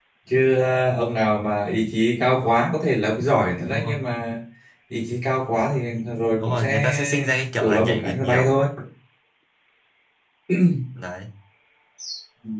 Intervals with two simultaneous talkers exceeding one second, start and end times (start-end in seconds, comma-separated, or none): 6.4-8.6